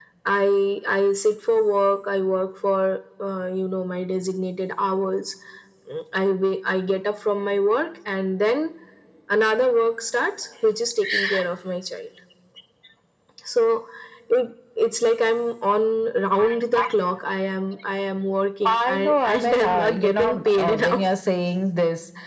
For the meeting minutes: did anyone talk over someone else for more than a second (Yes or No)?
Yes